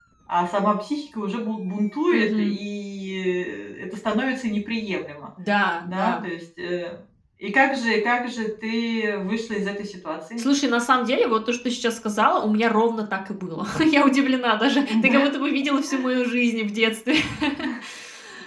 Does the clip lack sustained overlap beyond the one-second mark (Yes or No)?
Yes